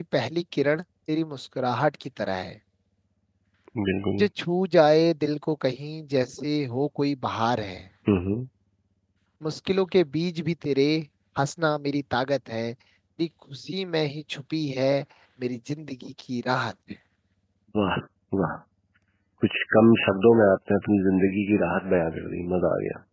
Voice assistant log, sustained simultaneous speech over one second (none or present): none